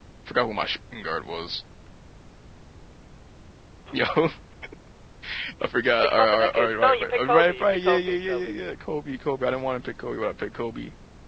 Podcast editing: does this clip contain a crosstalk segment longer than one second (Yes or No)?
Yes